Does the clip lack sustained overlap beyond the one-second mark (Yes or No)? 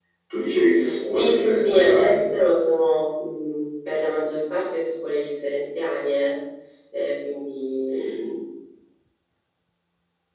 No